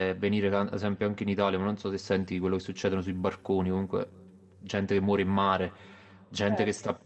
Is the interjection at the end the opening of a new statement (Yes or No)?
No